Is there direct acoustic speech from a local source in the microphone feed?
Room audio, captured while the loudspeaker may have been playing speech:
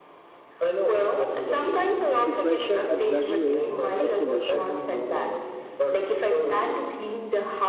Yes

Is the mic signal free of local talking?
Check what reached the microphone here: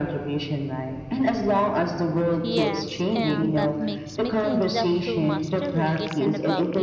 No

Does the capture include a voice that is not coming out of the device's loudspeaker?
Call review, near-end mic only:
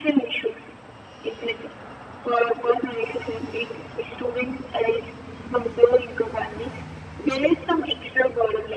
No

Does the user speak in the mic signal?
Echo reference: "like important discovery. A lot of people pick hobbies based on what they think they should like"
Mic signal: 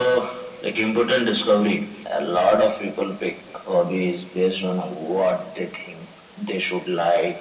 No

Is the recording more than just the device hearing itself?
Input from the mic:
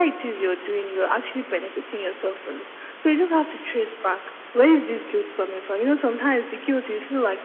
No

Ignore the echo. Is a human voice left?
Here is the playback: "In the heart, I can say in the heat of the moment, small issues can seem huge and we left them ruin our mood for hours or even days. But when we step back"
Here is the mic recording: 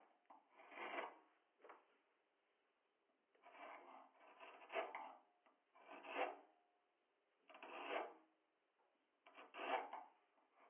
No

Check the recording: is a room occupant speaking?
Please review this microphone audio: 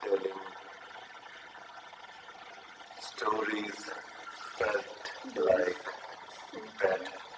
Yes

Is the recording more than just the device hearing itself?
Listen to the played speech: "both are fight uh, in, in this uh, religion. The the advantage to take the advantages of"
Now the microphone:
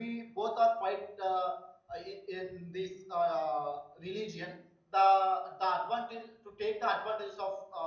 No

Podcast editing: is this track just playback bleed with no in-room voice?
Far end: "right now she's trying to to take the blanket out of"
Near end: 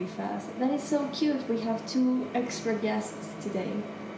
No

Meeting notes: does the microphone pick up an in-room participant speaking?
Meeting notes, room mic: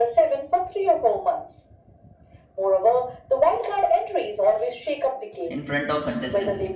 Yes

